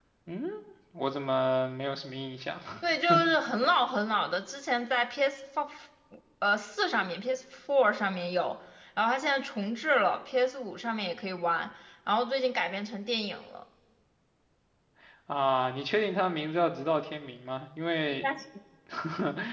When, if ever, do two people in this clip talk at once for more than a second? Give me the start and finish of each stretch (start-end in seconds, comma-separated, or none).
none